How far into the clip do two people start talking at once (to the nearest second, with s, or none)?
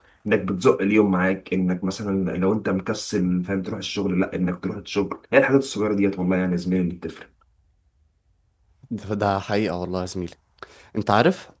none